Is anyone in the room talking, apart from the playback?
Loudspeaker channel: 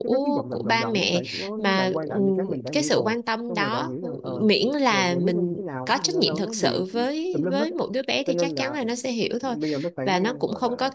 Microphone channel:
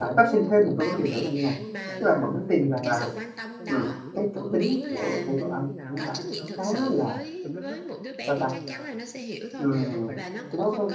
Yes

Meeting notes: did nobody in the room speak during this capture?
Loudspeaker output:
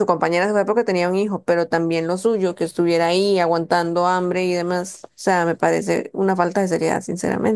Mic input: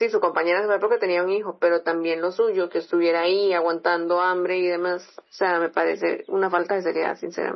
Yes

